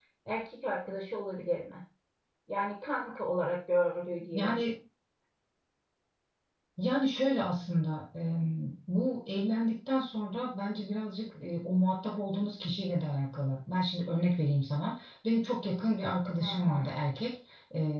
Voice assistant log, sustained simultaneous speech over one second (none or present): none